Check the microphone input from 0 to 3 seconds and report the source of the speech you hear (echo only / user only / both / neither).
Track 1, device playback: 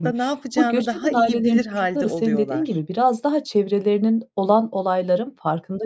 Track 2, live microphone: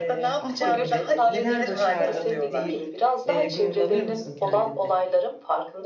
both